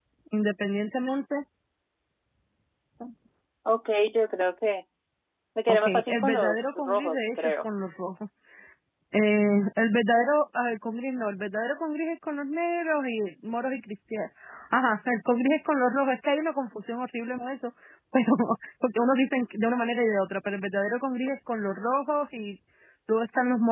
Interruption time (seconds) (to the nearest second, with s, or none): 6 s